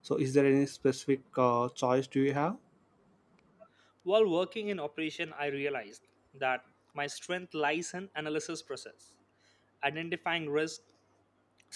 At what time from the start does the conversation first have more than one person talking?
none

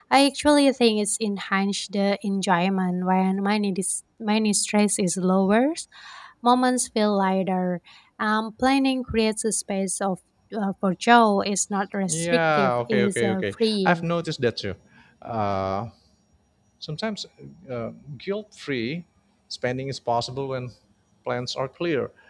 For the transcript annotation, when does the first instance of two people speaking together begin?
12 s

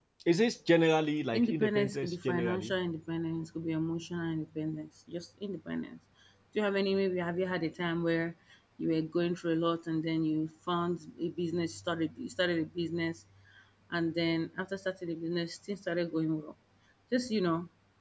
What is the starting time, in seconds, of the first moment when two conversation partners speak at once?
1 s

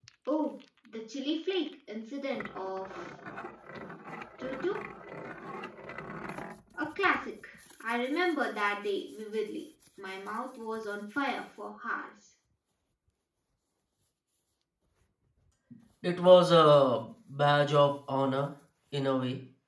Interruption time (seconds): none

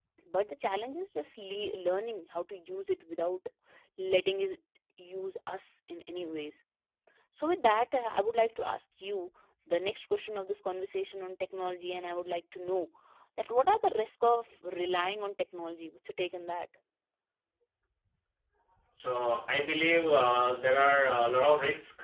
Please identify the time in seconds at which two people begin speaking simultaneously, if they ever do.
none

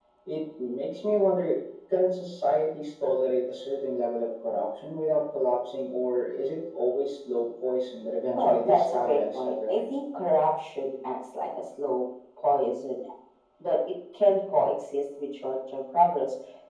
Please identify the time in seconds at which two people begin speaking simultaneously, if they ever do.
8 s

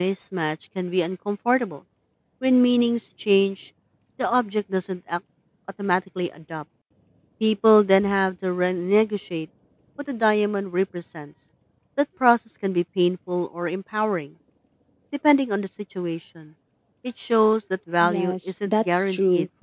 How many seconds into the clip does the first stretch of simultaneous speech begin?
18 s

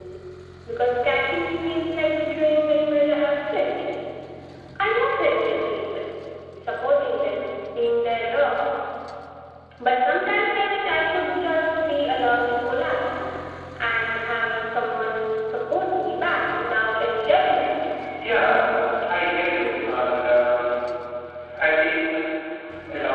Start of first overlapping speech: none

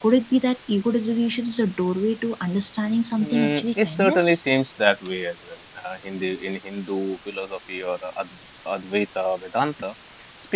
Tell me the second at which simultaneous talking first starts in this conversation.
3 s

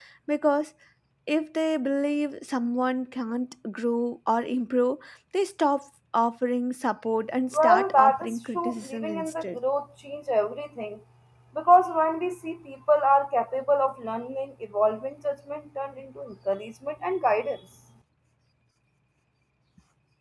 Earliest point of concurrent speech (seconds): 8 s

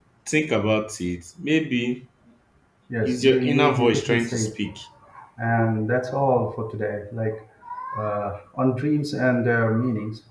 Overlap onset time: 3 s

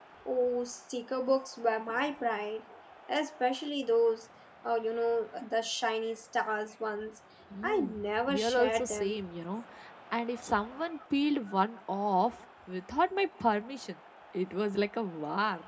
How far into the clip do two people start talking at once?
8 s

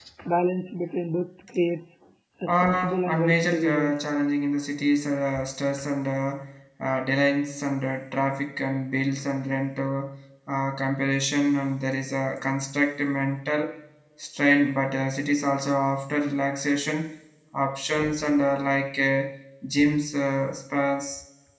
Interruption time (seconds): 2 s

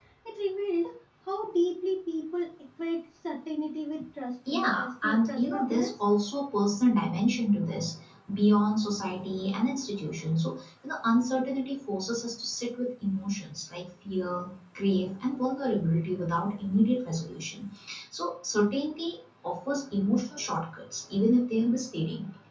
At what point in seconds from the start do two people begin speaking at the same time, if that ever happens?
4 s

